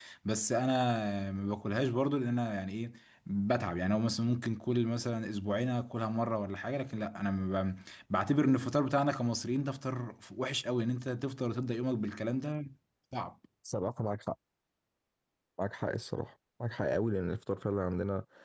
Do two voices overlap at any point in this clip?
No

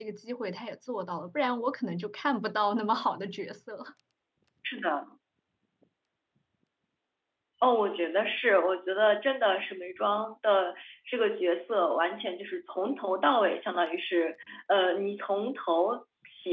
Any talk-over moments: No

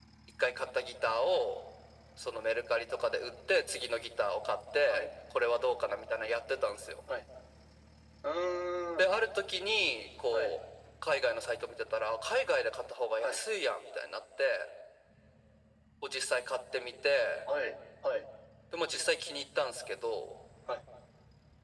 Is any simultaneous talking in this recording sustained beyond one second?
No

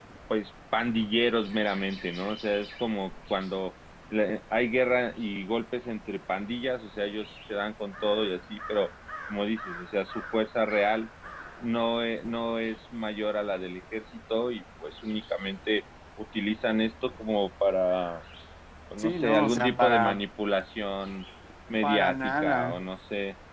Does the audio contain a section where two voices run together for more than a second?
Yes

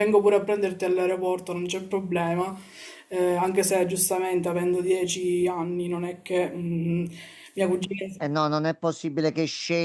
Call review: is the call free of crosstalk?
Yes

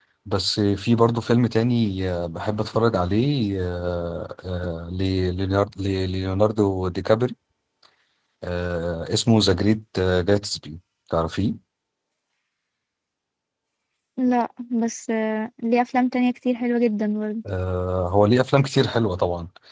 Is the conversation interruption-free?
Yes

